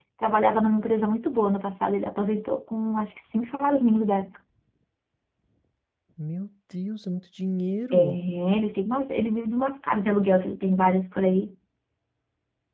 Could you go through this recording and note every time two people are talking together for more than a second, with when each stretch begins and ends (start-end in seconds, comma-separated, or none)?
none